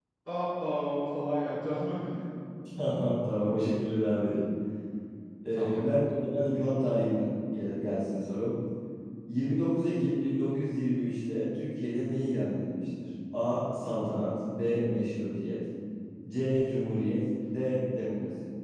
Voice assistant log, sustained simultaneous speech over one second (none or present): none